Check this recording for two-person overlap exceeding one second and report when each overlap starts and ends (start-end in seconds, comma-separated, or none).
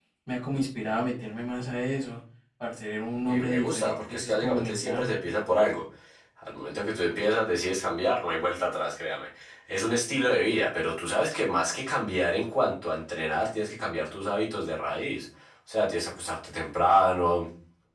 3.3-5.1